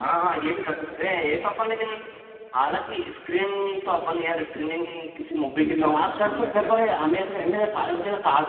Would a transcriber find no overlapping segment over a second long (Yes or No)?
No